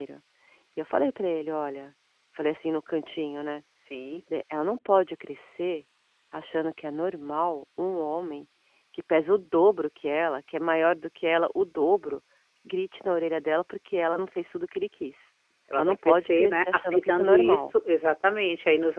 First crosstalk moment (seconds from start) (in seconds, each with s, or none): 15.8 s